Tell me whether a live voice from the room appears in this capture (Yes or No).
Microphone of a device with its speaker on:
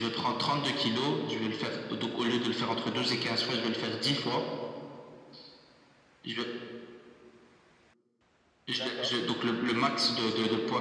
Yes